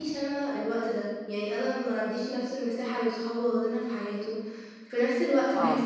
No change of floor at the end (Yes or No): Yes